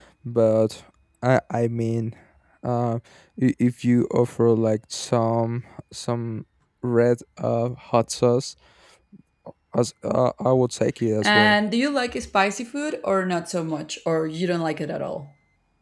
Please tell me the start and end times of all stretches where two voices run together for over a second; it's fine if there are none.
none

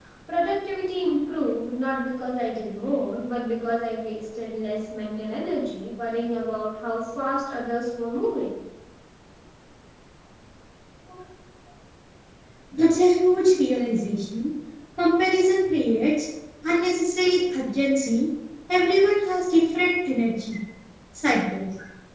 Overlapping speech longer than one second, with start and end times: none

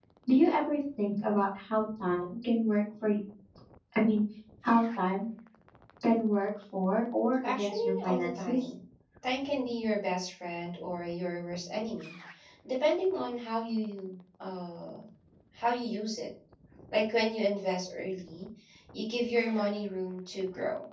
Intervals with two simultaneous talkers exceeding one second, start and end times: 7.4-8.6

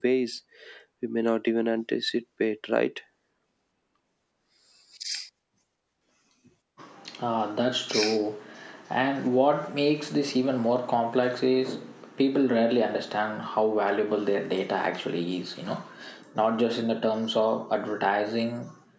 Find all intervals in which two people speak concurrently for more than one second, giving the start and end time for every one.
none

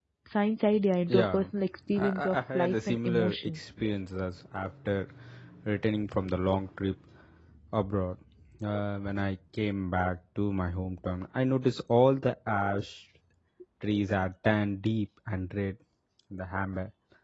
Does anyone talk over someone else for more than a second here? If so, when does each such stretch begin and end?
2.0-3.6

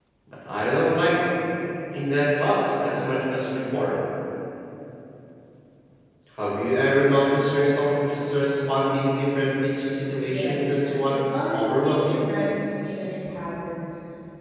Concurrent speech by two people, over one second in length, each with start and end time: 10.2-12.2

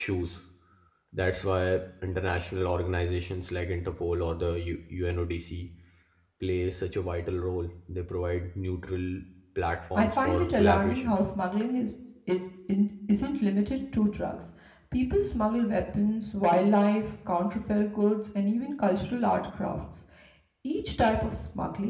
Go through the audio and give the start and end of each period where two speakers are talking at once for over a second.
9.9-11.2

